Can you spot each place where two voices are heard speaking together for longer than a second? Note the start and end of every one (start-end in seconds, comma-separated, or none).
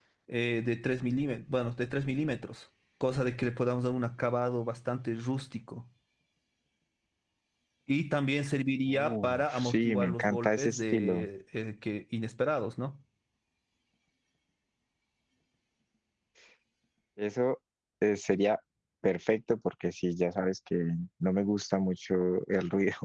8.9-11.3